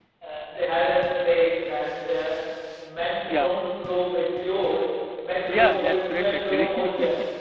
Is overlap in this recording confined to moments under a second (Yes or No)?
No